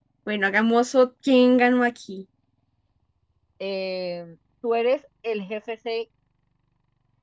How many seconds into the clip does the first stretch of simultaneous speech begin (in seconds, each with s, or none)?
none